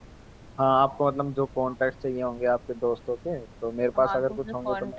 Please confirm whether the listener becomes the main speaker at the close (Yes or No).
Yes